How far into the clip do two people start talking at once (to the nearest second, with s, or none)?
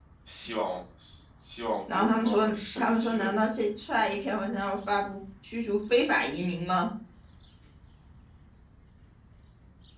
2 s